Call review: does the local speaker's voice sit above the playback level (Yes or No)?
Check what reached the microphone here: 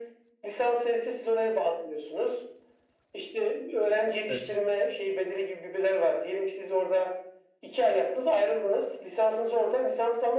No